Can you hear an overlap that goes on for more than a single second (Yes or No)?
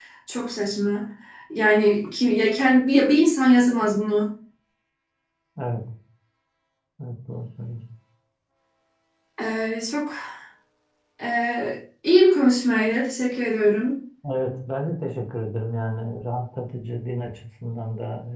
No